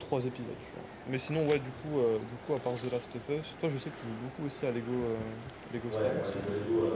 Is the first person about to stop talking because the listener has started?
Yes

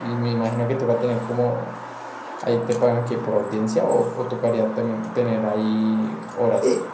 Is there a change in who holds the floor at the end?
Yes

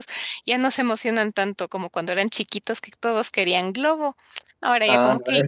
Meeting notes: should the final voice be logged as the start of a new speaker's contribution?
Yes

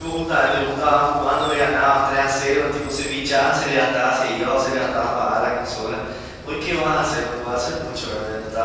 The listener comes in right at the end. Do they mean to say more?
No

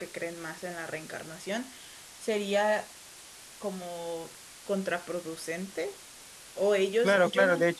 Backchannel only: No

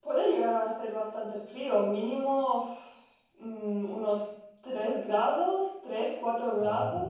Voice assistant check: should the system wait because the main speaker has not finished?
Yes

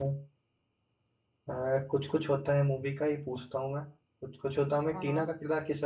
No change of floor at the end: Yes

